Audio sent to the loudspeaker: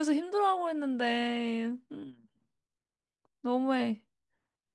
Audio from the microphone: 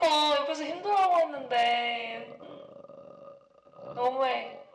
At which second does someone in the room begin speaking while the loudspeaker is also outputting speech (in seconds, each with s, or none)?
none